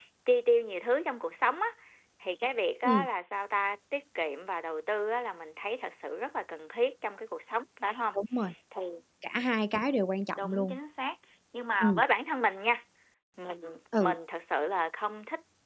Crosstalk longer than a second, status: none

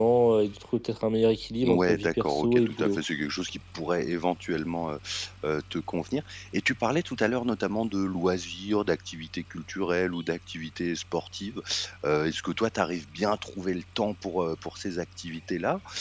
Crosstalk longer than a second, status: present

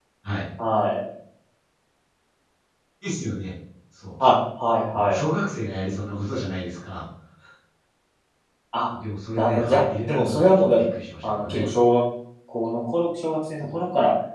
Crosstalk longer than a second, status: present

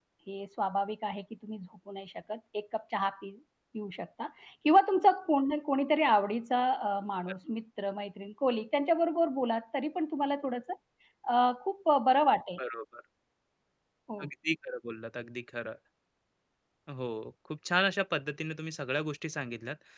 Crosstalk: none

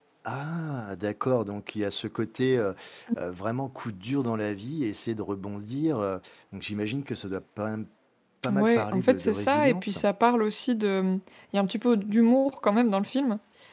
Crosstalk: present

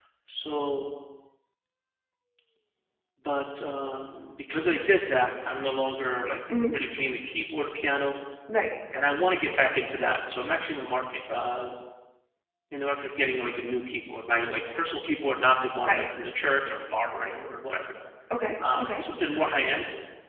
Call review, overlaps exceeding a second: none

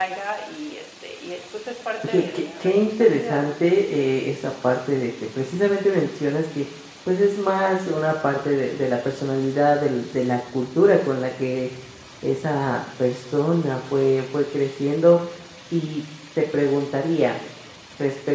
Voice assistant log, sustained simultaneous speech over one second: present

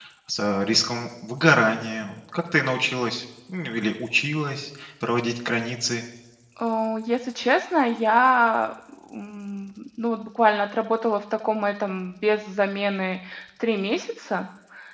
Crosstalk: none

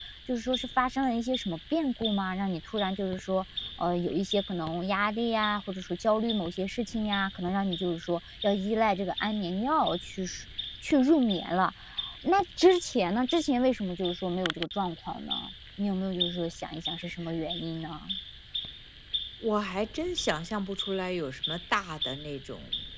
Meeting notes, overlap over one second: none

